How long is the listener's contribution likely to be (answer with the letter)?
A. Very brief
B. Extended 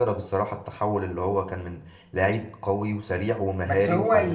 B